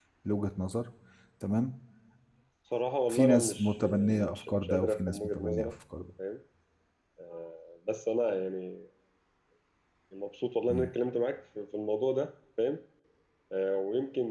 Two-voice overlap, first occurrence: 3.1 s

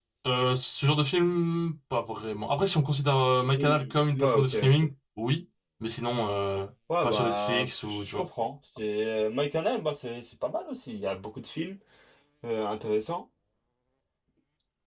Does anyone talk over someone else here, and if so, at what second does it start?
3.6 s

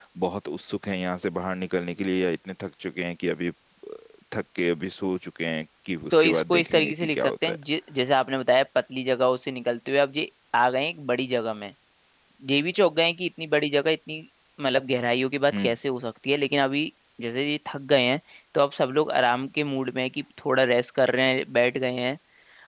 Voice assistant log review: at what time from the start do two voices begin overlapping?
6.1 s

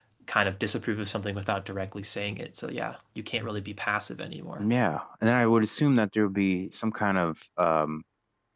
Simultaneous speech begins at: none

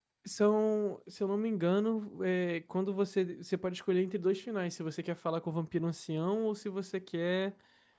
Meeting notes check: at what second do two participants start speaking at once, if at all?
none

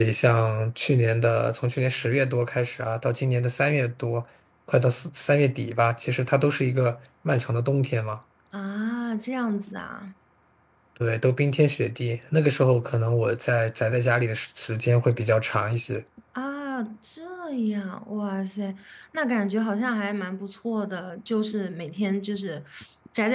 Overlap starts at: none

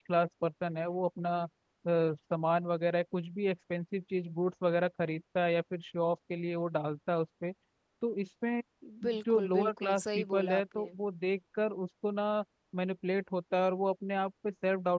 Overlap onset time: 9.3 s

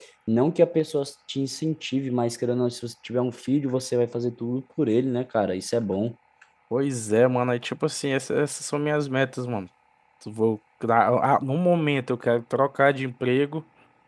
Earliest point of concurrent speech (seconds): none

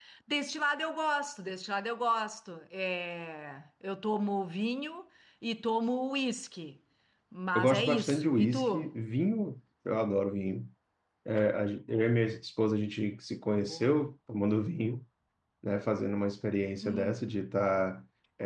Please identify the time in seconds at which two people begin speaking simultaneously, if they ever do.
7.5 s

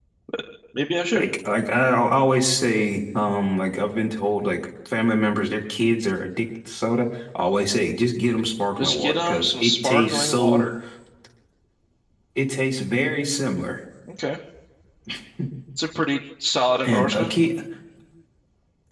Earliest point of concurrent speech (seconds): 8.8 s

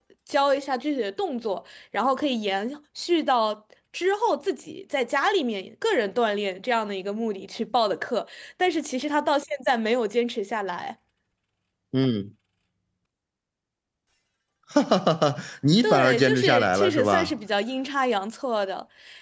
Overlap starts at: 15.8 s

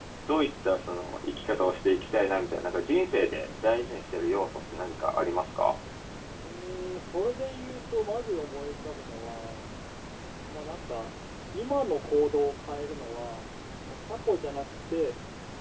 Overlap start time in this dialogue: none

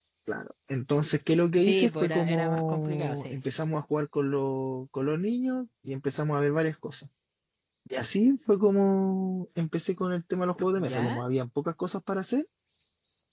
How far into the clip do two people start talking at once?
1.6 s

